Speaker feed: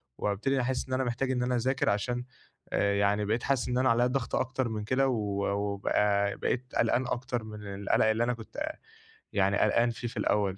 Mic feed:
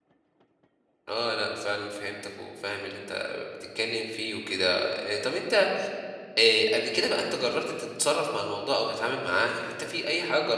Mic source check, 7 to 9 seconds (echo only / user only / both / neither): user only